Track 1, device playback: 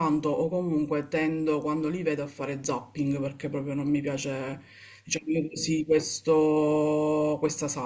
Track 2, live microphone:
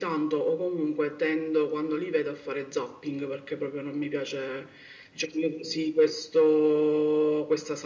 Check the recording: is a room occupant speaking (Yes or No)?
No